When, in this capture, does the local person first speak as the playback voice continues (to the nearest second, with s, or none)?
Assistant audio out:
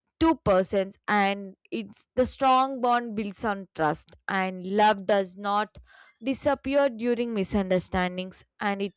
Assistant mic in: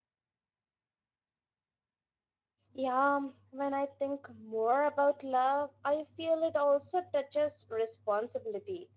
3 s